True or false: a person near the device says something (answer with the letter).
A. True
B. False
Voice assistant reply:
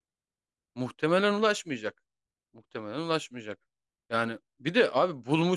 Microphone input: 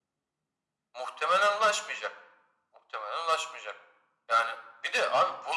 B